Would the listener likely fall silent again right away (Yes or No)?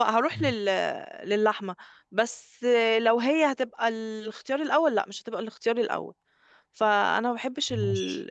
Yes